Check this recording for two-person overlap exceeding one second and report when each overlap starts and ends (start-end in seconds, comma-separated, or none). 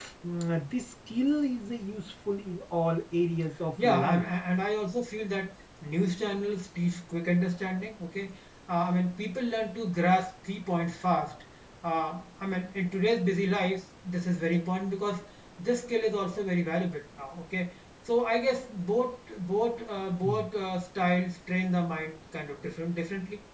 none